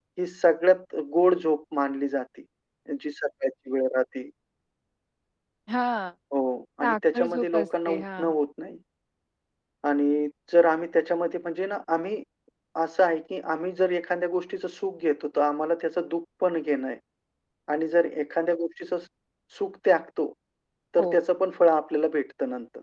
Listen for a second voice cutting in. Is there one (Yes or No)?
Yes